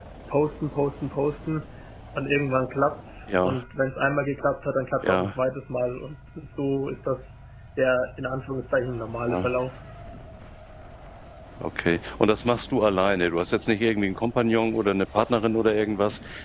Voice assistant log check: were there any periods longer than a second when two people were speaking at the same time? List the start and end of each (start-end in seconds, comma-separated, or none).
none